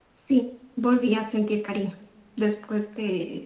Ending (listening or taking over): listening